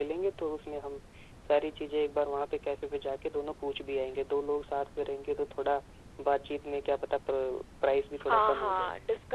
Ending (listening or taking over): taking over